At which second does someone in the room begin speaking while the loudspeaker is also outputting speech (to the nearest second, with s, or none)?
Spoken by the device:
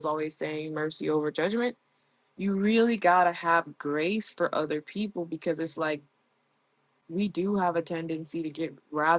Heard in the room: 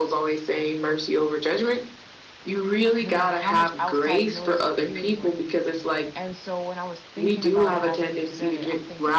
3 s